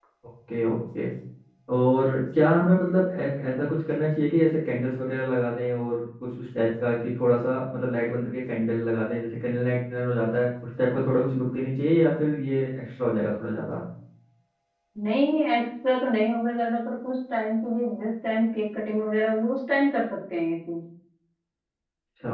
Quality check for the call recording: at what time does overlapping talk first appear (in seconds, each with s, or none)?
none